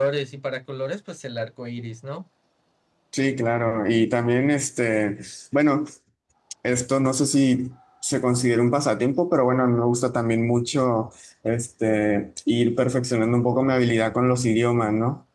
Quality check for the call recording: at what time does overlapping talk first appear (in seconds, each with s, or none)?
none